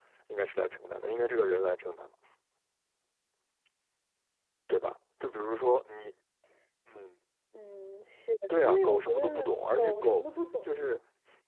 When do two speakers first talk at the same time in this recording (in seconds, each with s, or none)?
8.5 s